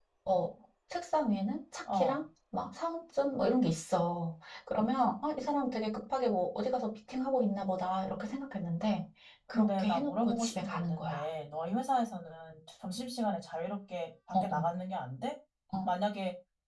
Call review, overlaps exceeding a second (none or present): present